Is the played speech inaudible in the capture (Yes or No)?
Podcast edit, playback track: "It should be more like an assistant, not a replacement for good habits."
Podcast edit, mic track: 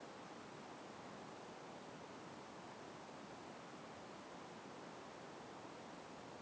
Yes